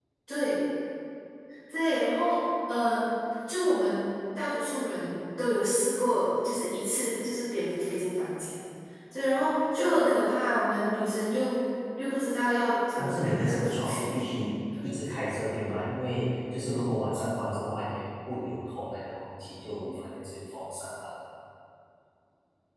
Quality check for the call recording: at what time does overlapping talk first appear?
13.0 s

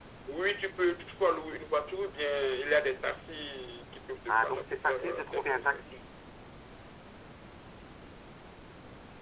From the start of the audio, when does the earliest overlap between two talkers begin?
4.3 s

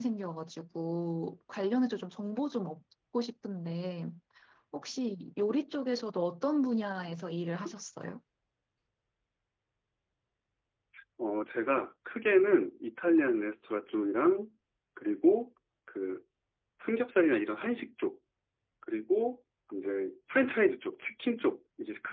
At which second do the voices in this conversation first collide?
none

